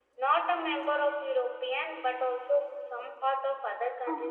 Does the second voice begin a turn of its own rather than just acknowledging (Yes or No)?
Yes